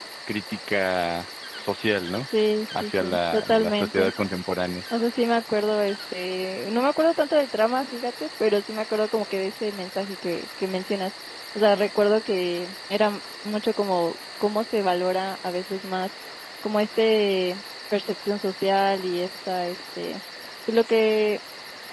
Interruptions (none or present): present